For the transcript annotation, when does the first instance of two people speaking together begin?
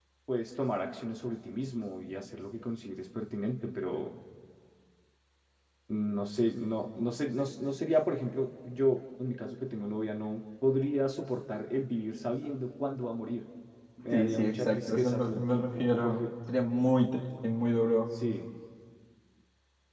14 s

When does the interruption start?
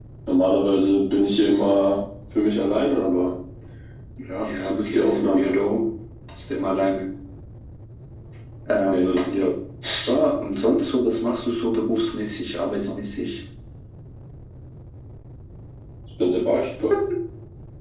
4 s

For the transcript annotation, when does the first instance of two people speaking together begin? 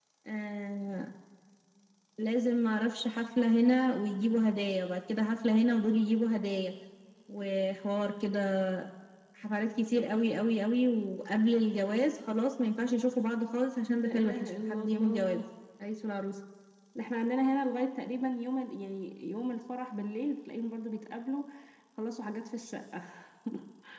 14 s

